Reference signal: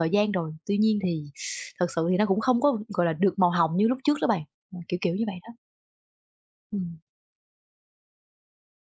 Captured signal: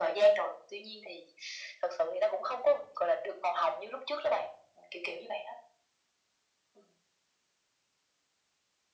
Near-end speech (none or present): none